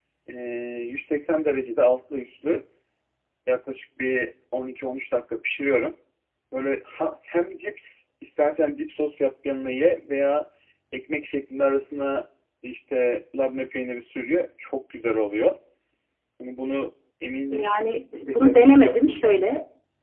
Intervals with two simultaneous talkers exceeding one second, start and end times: 18.1-19.4

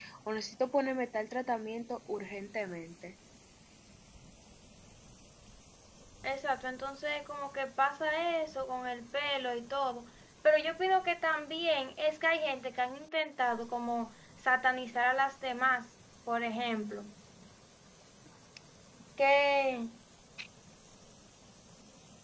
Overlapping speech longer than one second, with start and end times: none

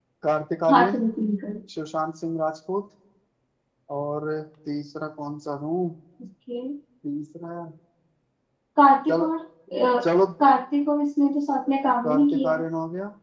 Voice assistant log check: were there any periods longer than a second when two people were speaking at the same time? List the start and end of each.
none

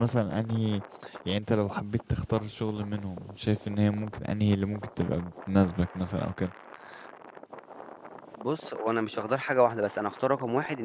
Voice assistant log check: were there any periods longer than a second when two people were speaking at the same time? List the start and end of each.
none

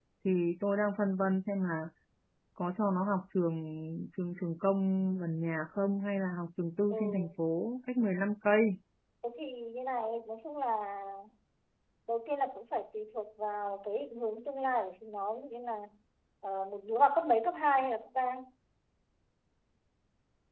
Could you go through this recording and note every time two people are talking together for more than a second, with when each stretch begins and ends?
none

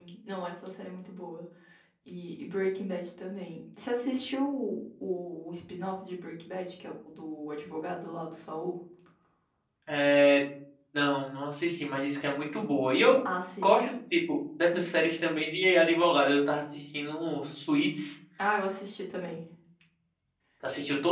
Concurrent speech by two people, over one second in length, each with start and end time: none

